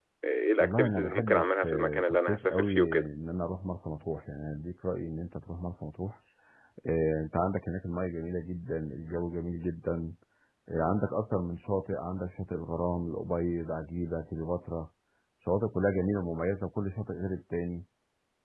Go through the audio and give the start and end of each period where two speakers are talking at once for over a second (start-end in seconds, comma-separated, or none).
0.6-3.1